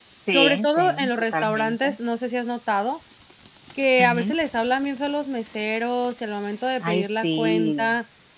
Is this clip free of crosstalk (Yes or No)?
No